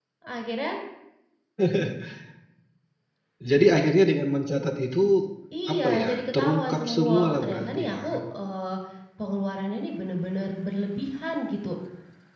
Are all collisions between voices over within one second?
No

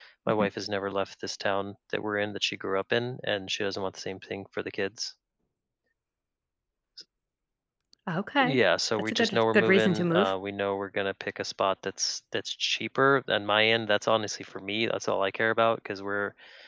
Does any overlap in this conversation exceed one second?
Yes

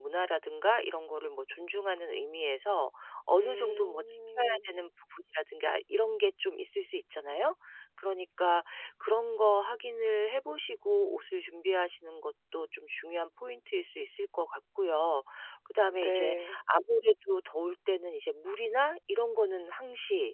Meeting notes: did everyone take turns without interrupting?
No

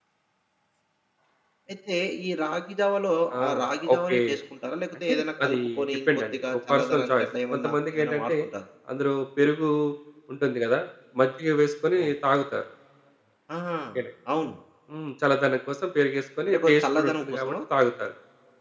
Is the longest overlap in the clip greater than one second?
Yes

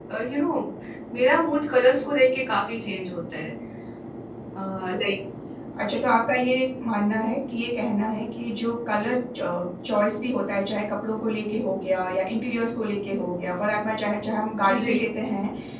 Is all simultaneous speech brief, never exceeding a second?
Yes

